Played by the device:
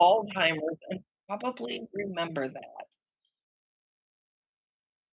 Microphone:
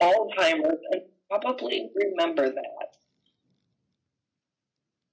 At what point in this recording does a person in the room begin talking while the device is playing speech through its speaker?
none

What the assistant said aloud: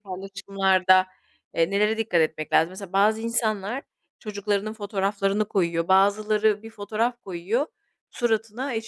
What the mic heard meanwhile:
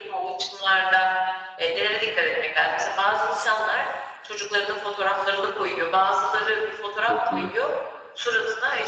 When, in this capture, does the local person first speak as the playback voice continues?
7.0 s

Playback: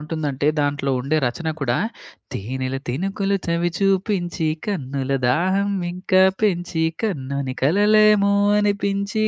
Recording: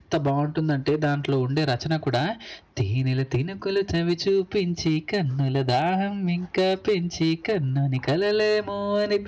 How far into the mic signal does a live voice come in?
none

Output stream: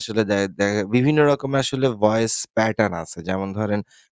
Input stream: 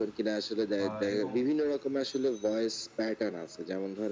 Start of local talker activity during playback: 0.8 s

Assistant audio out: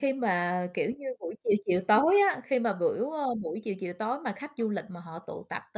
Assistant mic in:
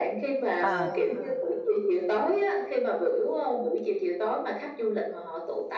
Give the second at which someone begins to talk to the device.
0.6 s

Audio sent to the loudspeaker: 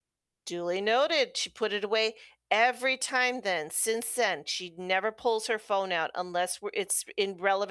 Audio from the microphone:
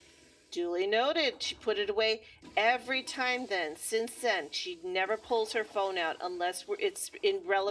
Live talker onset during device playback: none

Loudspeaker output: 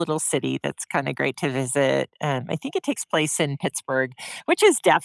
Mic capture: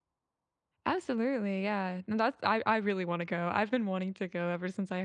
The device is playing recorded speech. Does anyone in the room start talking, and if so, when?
0.9 s

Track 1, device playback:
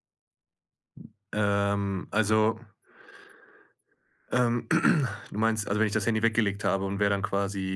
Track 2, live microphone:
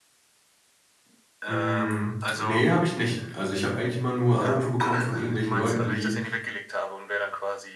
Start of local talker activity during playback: 1.5 s

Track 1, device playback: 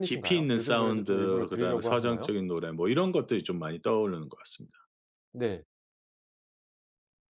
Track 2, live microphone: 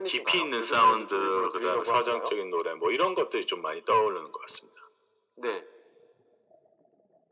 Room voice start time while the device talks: none

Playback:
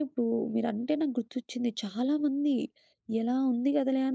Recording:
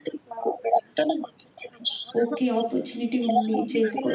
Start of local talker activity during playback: 2.2 s

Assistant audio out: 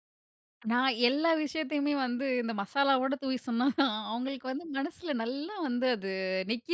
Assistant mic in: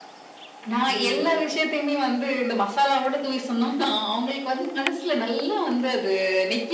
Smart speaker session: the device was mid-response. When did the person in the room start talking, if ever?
0.9 s

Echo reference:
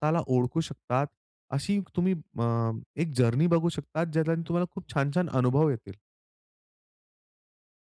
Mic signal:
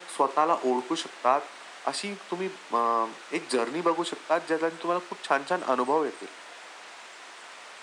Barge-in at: none

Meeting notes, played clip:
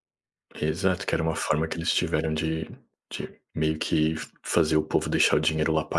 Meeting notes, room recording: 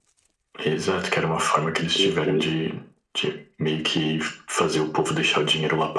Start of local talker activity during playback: 2.0 s

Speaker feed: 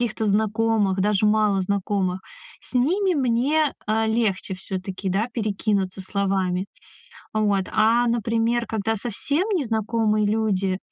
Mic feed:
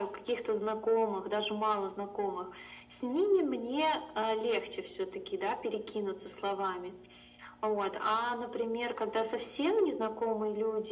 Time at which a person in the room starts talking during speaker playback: none

